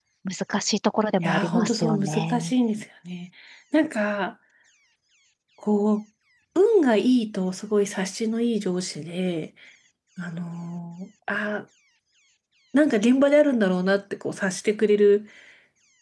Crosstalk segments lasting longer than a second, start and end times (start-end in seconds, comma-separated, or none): 1.2-2.5